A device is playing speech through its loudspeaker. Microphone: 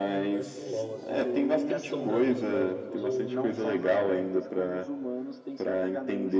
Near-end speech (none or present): present